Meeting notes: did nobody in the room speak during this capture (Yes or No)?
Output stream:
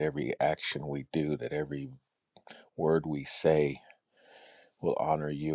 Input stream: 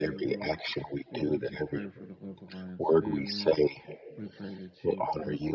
No